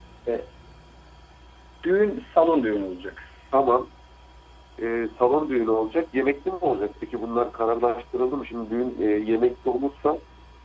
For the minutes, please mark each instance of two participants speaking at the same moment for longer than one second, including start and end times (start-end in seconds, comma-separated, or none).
none